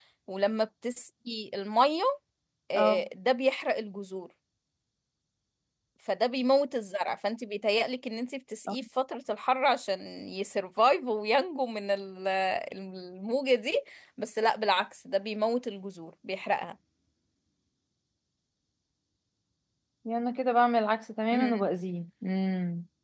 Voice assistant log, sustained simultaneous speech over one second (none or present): none